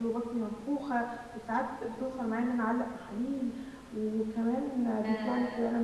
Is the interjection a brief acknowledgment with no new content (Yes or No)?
Yes